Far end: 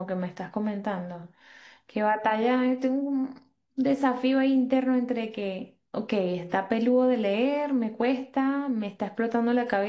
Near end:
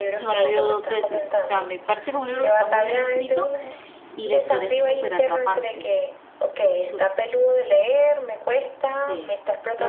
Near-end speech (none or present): present